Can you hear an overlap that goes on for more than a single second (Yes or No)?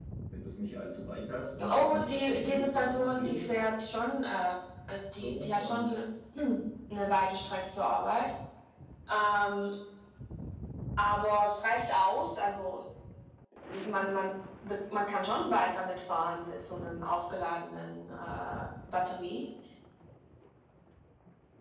Yes